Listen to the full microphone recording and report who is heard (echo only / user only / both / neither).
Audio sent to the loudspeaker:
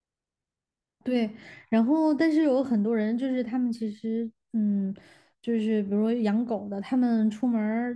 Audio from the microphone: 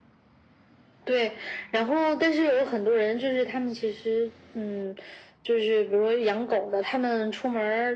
echo only